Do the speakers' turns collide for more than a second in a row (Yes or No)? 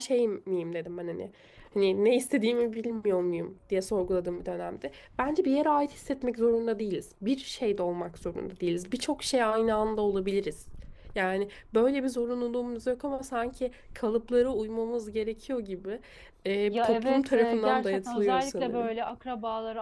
Yes